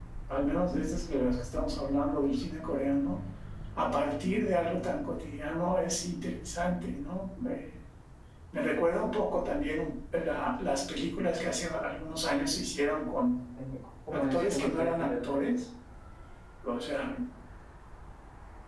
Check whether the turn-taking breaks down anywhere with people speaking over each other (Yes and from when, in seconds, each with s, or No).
Yes, from 14.1 s